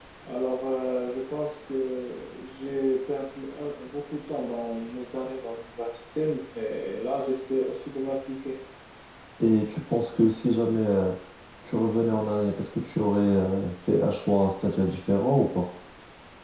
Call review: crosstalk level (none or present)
none